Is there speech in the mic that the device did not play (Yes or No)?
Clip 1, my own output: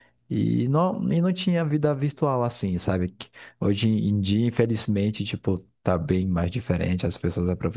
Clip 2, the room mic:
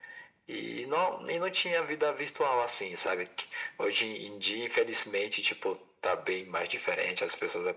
No